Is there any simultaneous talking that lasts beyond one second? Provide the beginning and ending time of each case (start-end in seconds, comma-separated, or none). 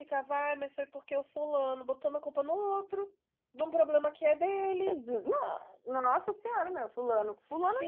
none